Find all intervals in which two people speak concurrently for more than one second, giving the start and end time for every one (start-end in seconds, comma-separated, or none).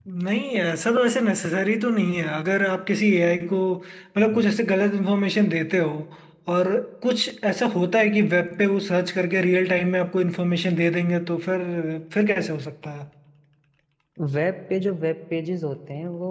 none